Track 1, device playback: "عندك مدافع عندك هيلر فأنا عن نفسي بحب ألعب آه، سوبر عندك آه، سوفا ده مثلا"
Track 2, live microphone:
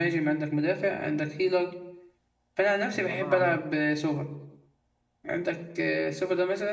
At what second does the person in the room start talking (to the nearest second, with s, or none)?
3 s